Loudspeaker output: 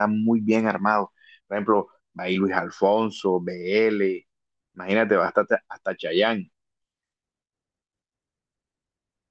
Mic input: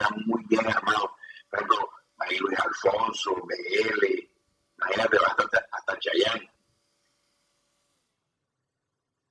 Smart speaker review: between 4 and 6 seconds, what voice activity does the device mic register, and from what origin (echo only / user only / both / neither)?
echo only